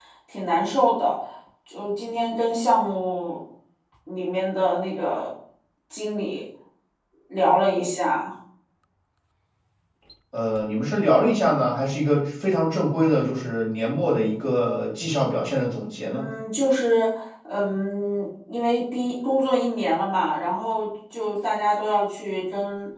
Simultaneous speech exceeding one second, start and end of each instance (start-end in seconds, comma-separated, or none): none